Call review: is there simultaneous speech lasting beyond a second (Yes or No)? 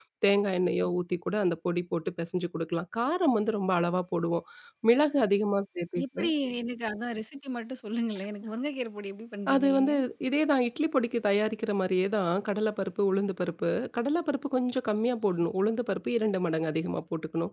No